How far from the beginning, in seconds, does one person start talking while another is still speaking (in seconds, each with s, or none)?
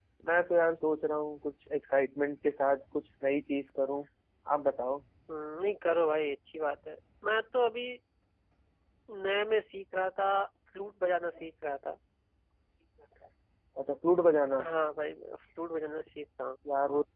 none